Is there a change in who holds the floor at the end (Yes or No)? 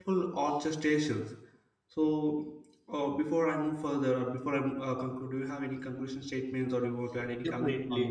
Yes